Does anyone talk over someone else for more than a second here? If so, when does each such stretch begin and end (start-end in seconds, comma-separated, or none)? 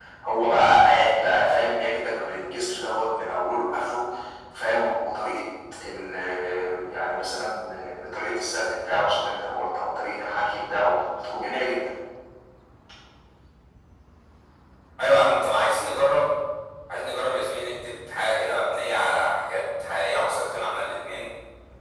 none